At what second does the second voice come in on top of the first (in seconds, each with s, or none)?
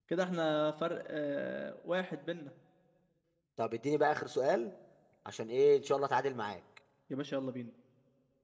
none